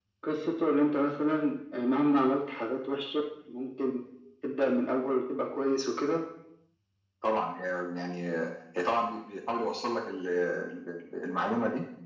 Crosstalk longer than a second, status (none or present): none